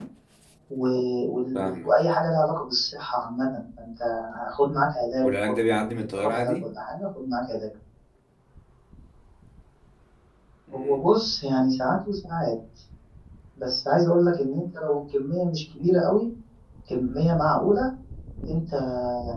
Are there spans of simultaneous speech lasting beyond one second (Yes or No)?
Yes